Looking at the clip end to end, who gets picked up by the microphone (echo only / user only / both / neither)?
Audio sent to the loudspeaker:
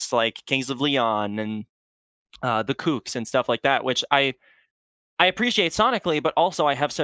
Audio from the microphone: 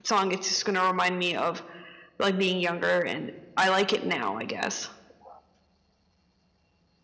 user only